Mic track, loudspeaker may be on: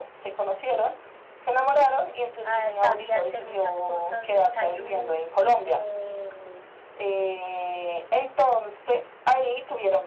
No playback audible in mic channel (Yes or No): No